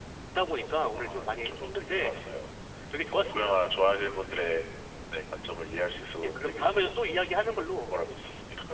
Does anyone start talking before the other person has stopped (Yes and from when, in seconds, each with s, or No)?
Yes, from 1.0 s